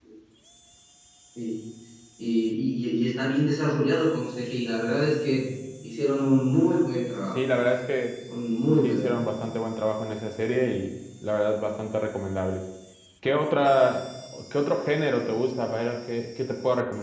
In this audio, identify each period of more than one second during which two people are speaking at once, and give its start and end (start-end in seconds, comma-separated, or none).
none